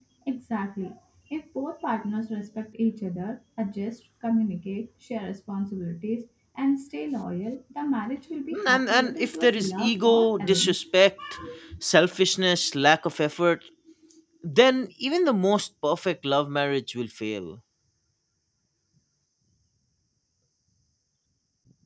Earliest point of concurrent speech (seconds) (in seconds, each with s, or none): 8.5 s